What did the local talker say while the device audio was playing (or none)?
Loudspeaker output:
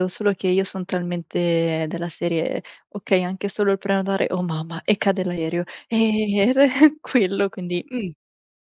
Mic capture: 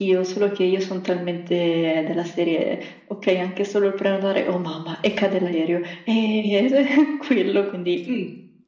none